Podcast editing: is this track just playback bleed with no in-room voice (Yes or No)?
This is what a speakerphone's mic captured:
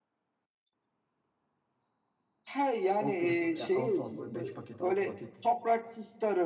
No